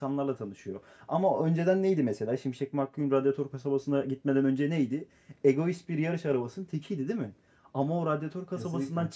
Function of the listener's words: listening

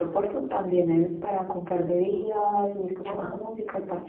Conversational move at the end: listening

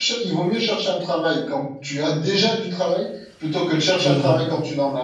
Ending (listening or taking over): listening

